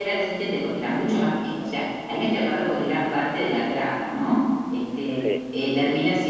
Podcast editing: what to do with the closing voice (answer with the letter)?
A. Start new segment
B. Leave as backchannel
B